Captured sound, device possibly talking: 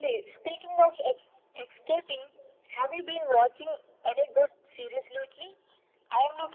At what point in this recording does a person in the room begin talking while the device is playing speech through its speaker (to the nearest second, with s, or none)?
none